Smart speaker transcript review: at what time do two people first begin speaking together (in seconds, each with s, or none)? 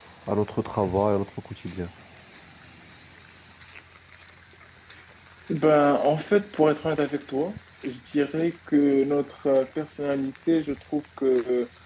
none